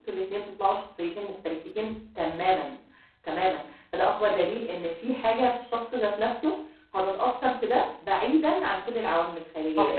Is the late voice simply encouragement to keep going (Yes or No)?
No